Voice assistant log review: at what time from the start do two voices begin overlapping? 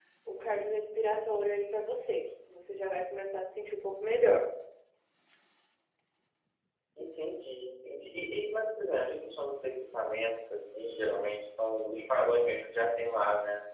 none

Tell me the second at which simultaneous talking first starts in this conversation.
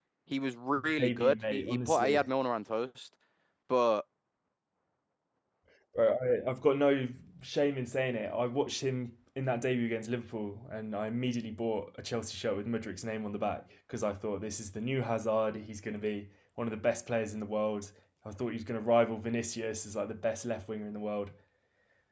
1.0 s

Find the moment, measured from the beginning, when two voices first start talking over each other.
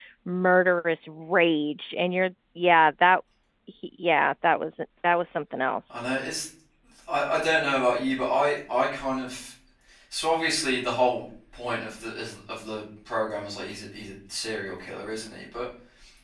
none

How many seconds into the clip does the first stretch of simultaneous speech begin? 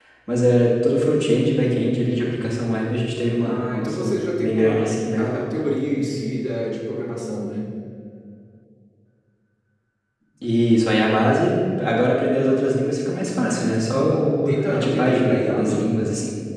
3.4 s

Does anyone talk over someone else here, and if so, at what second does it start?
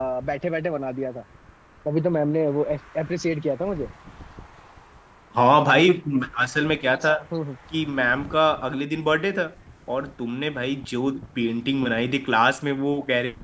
none

